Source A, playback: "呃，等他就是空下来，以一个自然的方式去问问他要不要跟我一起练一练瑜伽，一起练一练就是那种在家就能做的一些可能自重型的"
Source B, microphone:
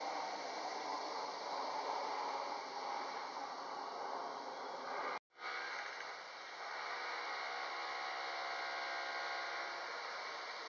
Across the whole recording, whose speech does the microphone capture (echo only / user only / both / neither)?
neither